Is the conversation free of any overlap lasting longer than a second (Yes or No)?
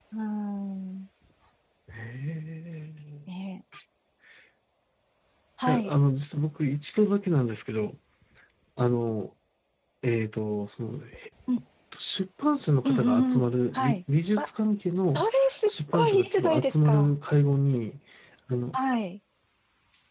No